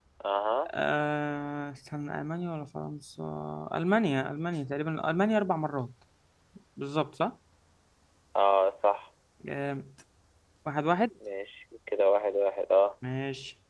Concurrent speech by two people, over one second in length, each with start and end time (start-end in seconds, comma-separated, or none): none